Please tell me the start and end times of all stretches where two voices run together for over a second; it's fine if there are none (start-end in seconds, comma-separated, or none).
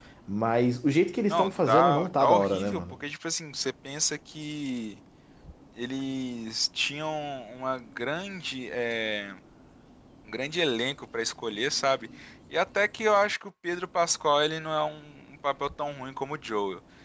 1.3-2.9